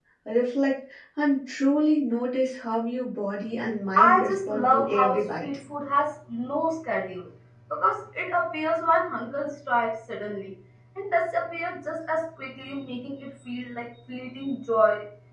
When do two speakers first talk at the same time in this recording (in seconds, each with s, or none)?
4.0 s